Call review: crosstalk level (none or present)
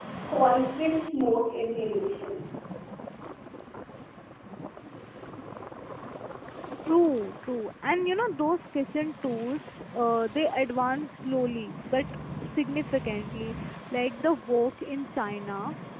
none